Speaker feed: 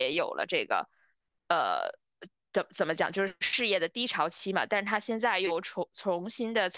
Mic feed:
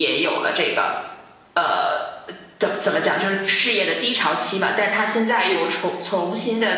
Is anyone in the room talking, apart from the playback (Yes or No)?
No